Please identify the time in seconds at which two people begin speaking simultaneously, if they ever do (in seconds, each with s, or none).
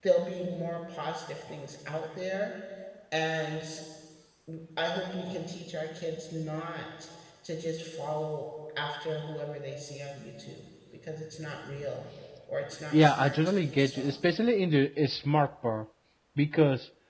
12.9 s